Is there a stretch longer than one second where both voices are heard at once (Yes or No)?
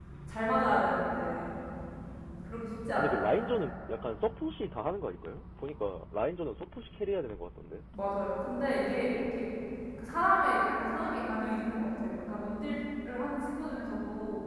No